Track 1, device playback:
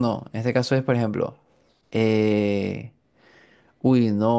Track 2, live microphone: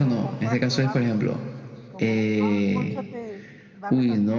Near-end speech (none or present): present